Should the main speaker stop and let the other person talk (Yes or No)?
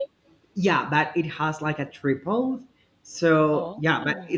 No